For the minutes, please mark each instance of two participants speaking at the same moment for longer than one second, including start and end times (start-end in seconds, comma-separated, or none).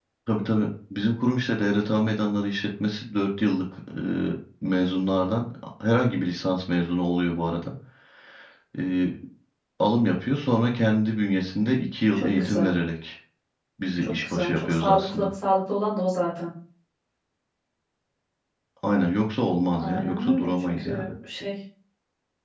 14.0-15.3, 19.8-21.1